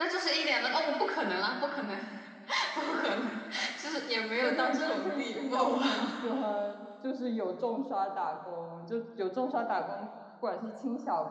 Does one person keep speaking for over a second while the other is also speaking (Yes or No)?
Yes